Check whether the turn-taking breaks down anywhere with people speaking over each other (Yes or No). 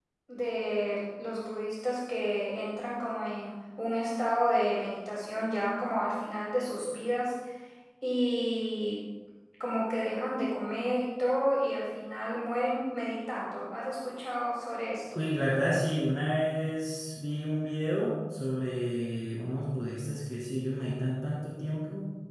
No